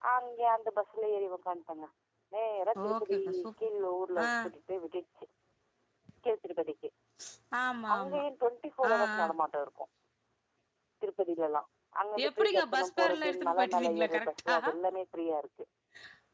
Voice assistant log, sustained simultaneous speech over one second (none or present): present